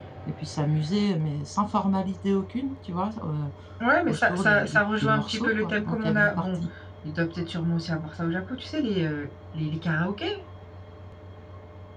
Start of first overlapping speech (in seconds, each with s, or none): 4.1 s